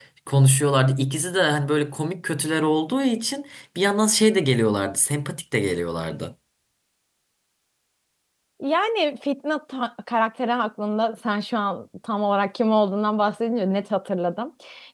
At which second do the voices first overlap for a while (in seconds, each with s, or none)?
none